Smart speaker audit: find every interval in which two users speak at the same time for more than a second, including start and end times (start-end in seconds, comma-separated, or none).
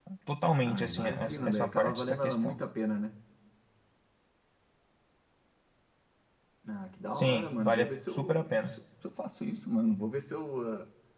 0.7-2.6, 7.2-8.7